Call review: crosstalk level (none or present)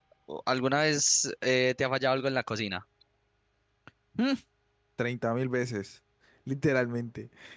none